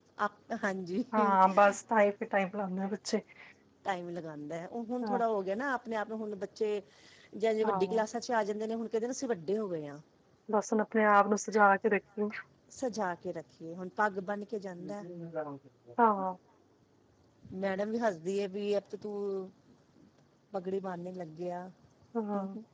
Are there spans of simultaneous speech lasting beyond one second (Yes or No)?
No